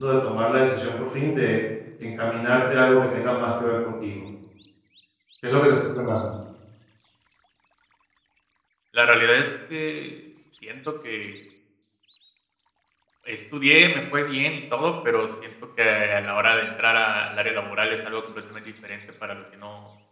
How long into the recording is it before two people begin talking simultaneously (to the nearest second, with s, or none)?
none